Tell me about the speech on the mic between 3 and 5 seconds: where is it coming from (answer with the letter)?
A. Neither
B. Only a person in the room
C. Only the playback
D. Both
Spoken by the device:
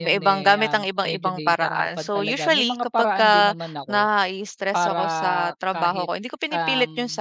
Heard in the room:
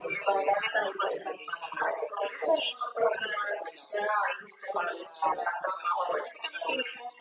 C